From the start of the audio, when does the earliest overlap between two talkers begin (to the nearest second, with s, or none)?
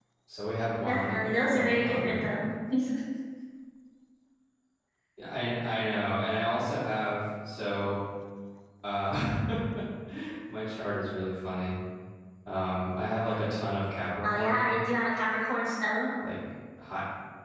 1 s